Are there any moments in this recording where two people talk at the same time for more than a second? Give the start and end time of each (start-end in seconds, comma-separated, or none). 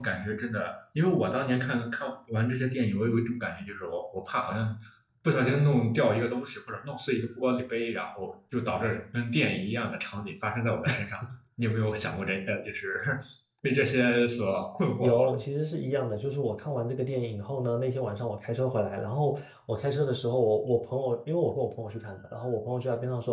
none